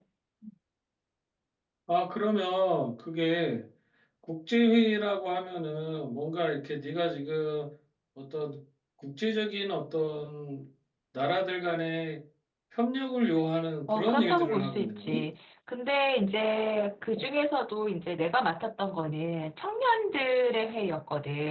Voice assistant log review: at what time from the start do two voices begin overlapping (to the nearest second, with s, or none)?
14 s